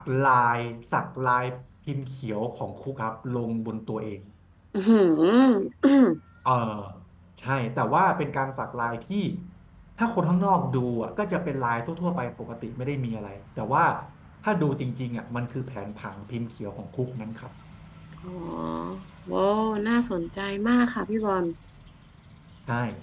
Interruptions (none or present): none